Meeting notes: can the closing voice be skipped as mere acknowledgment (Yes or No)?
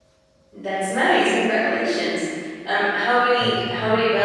Yes